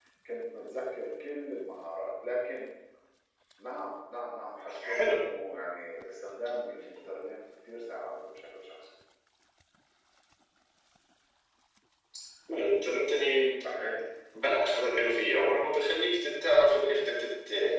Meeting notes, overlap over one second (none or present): none